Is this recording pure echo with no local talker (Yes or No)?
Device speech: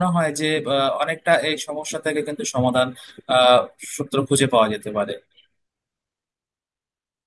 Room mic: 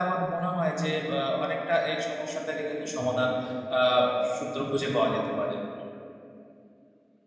Yes